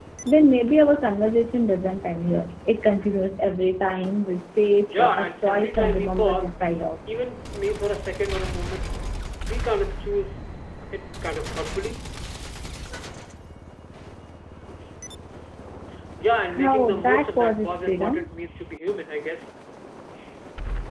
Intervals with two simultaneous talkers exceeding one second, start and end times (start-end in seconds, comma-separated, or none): 4.9-6.5, 16.6-18.2